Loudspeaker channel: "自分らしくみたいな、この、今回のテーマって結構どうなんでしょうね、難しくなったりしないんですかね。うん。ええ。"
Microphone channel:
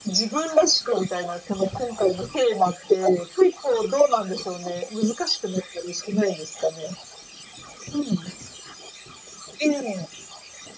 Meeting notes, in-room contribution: none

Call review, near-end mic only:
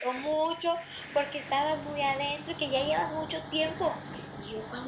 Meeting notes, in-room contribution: none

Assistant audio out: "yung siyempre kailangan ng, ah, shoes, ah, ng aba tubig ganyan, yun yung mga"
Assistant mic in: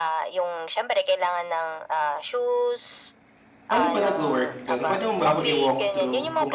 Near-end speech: present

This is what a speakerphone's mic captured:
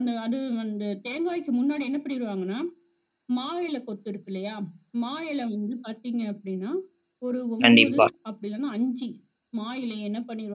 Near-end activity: present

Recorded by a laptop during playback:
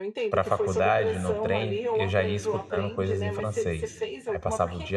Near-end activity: present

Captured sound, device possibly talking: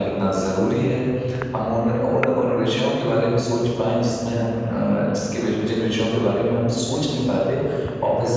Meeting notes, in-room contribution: none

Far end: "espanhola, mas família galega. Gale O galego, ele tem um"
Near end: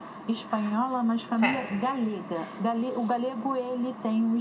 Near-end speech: present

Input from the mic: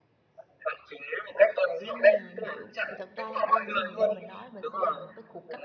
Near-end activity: present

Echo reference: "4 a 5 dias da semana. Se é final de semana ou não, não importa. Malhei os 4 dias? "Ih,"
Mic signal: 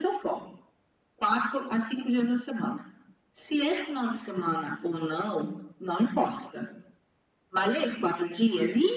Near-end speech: none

